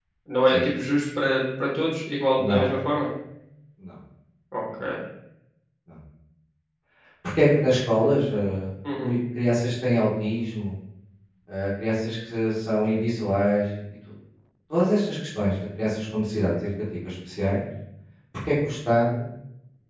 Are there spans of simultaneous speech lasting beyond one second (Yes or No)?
No